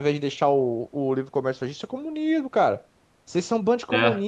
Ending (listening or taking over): listening